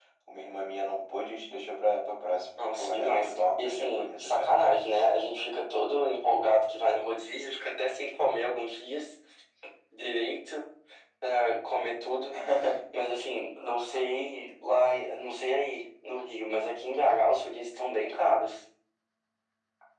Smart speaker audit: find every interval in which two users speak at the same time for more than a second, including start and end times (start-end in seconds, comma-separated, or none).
2.6-4.5